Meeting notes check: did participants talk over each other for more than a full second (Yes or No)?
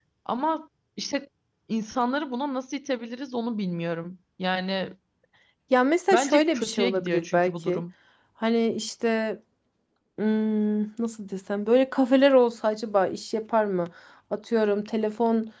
Yes